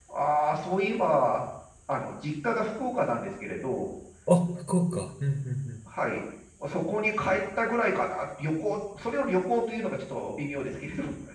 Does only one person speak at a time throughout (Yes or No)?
Yes